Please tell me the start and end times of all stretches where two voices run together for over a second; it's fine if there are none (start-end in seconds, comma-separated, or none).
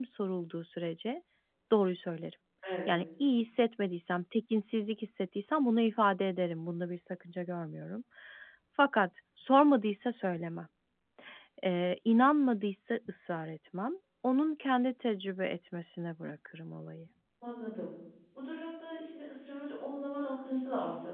none